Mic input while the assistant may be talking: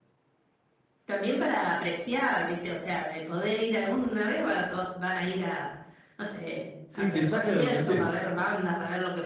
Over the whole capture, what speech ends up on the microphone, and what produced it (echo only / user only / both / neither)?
both